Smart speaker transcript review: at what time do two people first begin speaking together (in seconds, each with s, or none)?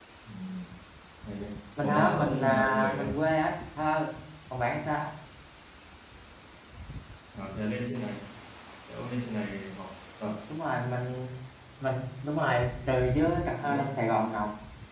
1.8 s